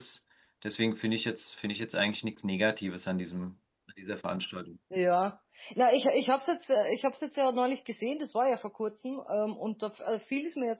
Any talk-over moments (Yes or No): No